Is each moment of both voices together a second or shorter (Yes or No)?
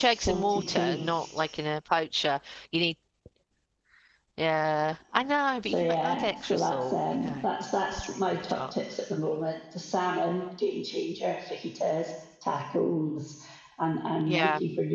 No